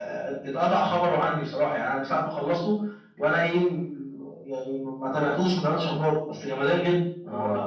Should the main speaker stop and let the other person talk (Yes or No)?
Yes